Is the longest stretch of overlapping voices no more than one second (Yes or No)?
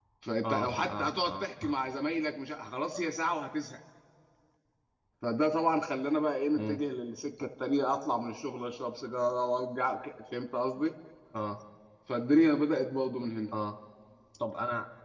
No